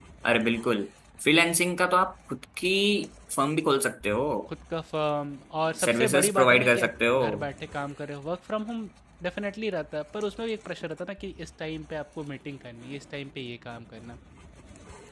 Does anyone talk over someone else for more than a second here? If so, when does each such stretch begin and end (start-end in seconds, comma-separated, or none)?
5.8-7.2